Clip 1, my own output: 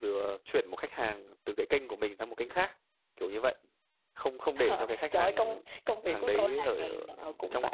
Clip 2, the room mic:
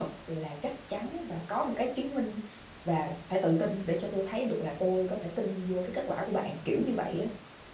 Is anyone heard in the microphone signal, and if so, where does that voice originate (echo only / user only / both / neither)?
user only